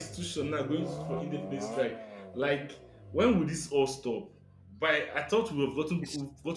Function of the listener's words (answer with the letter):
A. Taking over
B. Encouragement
B